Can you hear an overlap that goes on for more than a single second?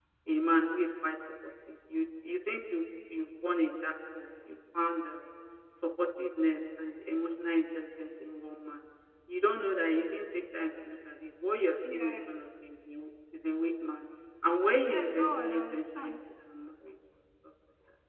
Yes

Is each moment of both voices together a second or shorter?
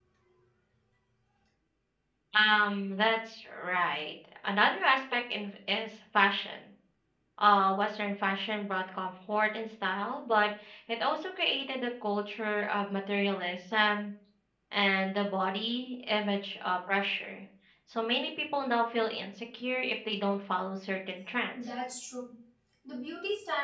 Yes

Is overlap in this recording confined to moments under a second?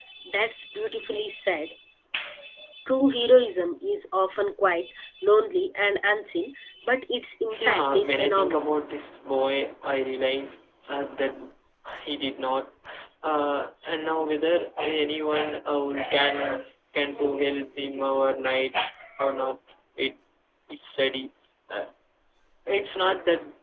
No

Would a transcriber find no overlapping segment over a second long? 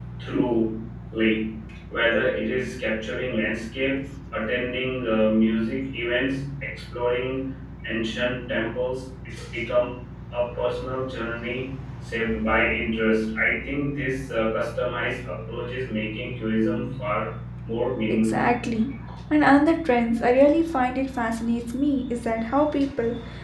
Yes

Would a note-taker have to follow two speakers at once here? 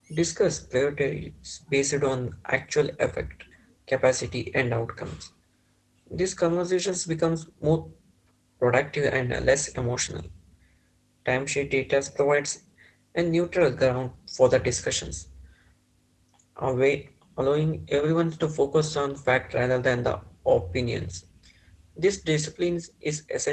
No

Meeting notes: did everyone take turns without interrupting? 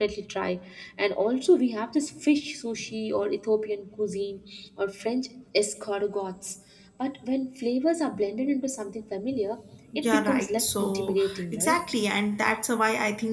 No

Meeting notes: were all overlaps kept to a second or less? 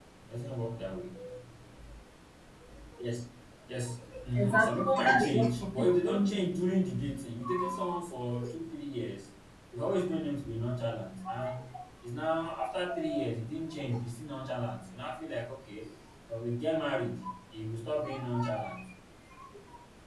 No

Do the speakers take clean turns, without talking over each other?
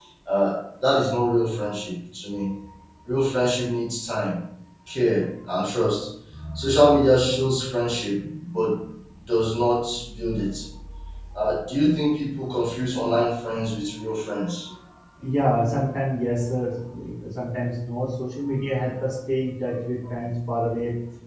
Yes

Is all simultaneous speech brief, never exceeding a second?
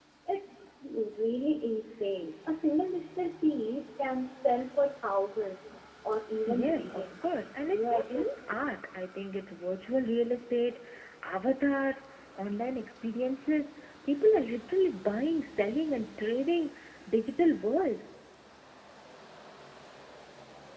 No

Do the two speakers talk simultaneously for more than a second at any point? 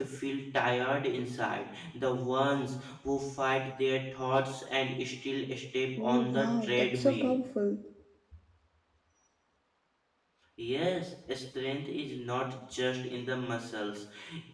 Yes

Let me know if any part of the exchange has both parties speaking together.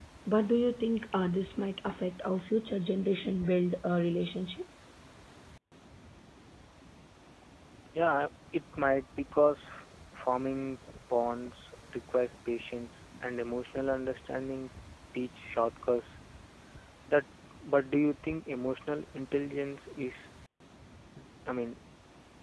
No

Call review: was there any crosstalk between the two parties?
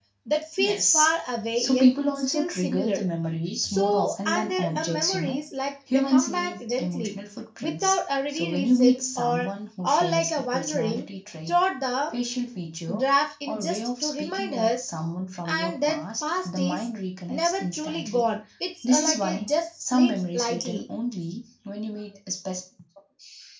Yes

